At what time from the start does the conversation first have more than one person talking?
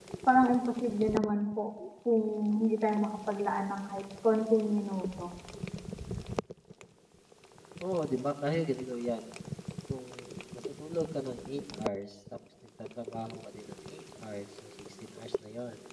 none

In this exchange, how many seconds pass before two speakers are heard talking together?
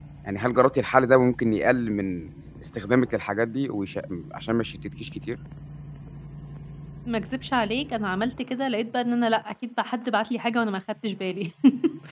none

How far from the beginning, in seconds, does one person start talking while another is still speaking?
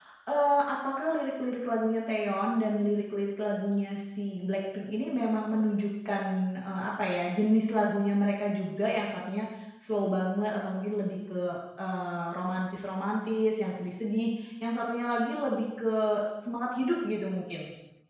none

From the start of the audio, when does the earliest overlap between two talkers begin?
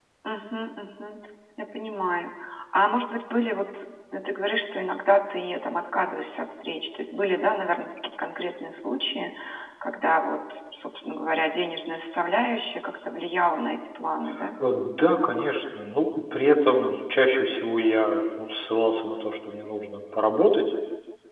none

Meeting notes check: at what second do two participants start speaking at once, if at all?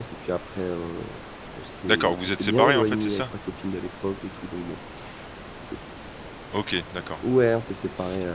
1.8 s

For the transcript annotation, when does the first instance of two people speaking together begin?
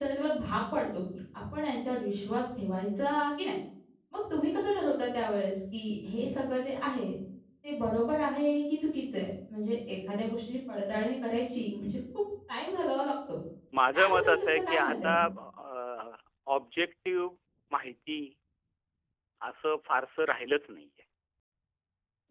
13.9 s

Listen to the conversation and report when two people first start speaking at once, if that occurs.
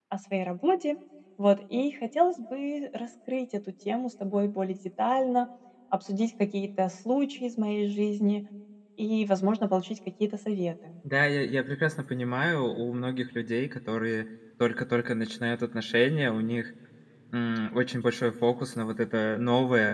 none

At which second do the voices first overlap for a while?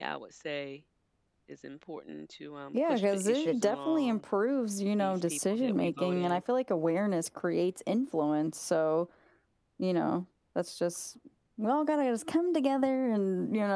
2.7 s

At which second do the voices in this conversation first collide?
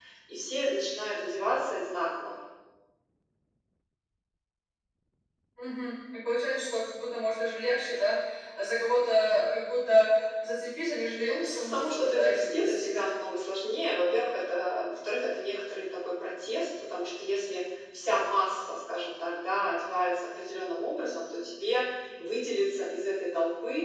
11.1 s

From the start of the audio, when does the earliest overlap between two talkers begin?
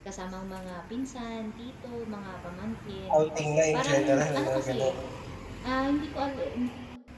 3.7 s

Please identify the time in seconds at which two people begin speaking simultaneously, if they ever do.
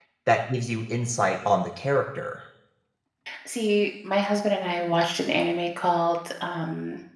none

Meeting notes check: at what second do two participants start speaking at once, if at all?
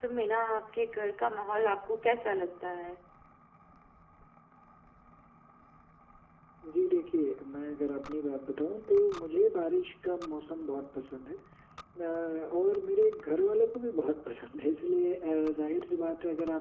none

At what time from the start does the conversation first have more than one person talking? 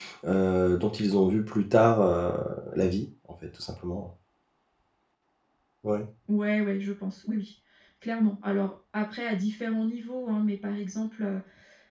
none

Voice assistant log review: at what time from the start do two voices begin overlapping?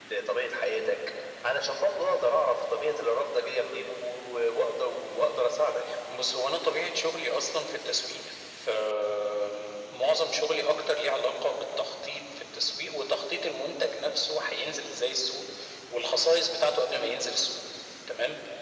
none

